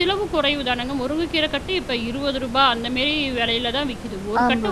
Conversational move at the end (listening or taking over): listening